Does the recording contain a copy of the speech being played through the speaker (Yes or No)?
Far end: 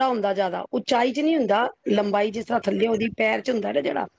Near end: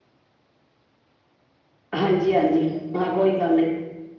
No